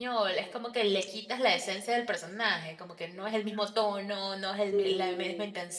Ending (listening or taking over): listening